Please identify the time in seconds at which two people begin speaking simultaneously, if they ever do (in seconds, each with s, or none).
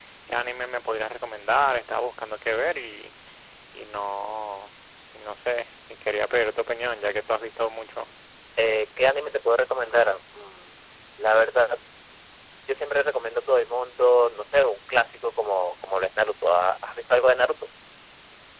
none